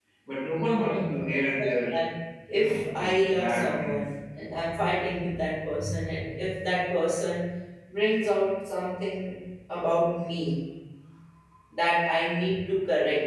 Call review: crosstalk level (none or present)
present